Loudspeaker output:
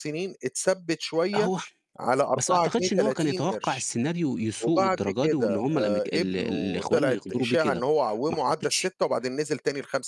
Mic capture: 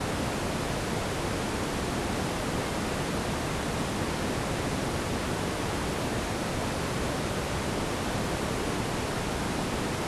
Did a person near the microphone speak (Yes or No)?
No